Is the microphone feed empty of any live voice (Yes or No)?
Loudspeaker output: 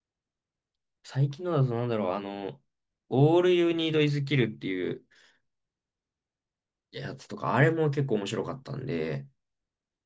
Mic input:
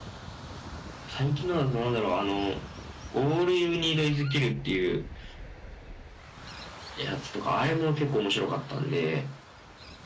Yes